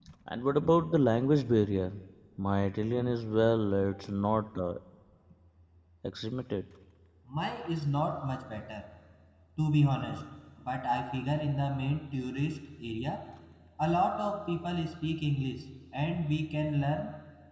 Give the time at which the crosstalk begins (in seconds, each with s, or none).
none